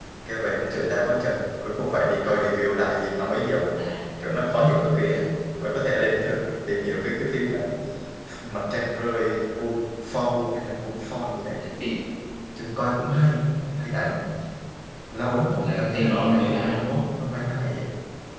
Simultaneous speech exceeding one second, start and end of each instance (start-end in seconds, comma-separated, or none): 15.6-17.0